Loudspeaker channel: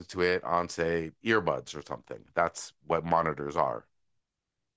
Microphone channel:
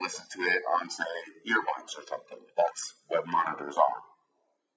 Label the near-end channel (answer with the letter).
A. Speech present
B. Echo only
B